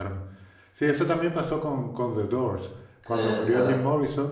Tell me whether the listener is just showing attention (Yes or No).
Yes